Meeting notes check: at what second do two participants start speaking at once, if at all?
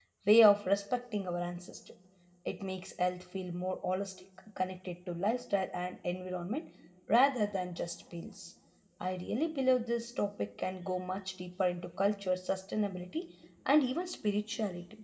none

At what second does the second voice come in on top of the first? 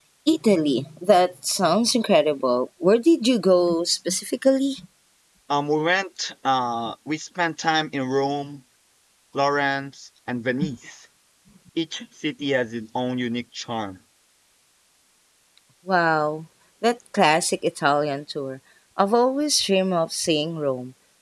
none

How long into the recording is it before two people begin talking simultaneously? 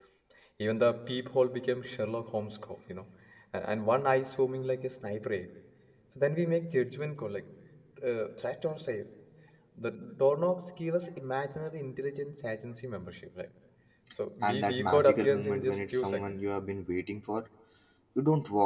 14 s

